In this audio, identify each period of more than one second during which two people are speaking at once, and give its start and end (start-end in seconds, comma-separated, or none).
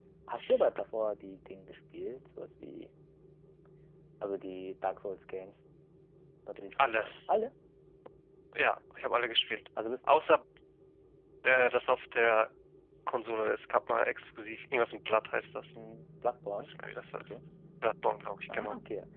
none